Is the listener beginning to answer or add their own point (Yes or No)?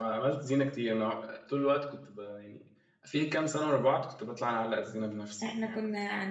Yes